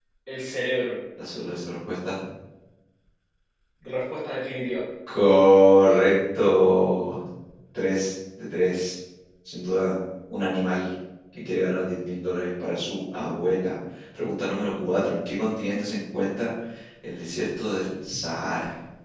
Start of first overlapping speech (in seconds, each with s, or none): none